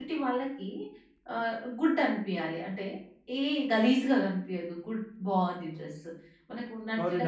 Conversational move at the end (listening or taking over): listening